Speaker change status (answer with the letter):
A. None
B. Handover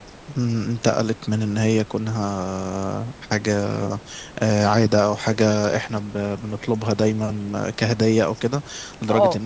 A